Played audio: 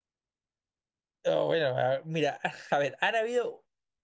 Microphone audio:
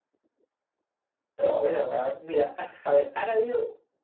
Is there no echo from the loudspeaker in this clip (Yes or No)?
No